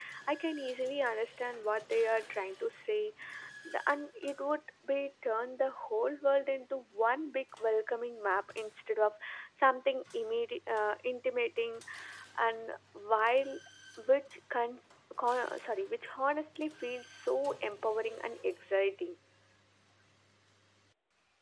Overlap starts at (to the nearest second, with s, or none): none